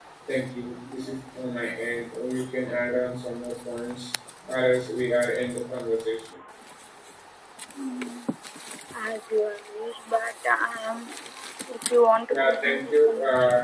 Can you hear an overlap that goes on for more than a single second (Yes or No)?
Yes